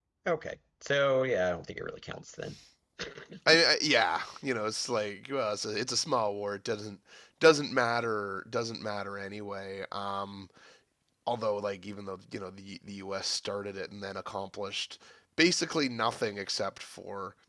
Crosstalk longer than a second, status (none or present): none